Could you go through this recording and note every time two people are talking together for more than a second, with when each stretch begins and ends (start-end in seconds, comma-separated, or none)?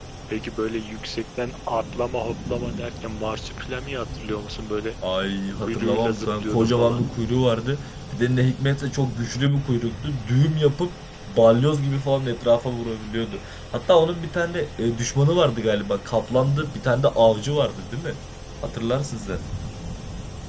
5.6-7.0